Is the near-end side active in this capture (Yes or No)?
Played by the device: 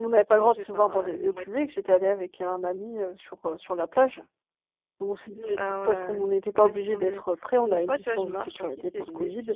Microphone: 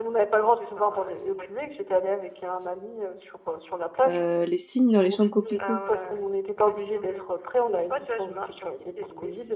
Yes